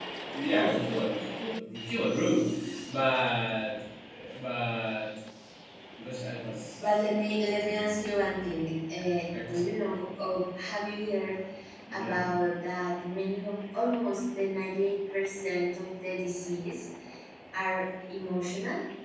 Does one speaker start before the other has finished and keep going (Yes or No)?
Yes